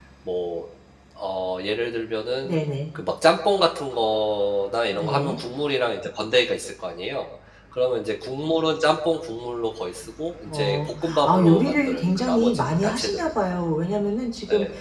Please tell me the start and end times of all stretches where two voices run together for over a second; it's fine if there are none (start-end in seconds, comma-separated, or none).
10.5-13.3